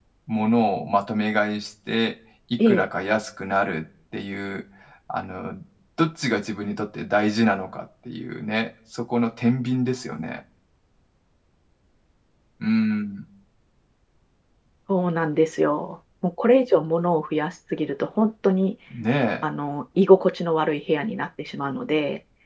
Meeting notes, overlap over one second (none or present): none